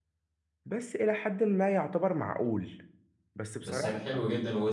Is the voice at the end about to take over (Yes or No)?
Yes